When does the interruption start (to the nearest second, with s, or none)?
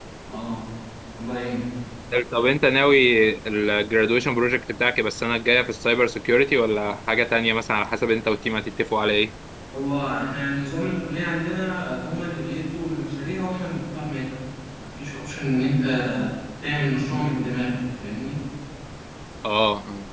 none